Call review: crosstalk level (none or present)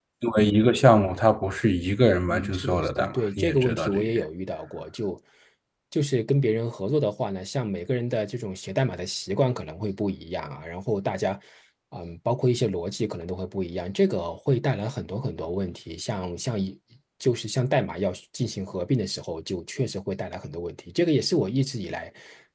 present